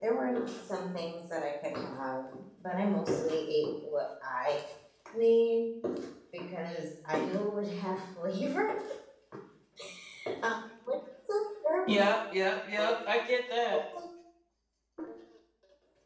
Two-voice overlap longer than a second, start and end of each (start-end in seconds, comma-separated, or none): none